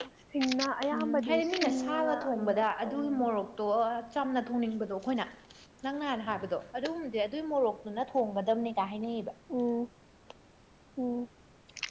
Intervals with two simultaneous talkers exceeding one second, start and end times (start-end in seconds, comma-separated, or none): 0.9-3.3